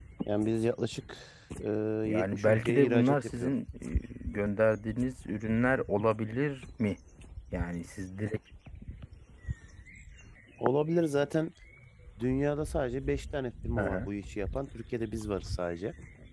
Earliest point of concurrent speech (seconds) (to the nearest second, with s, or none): 2 s